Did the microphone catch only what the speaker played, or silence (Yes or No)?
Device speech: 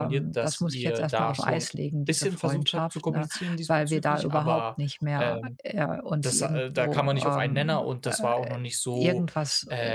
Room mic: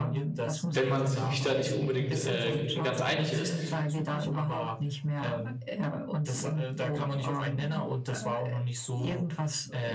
No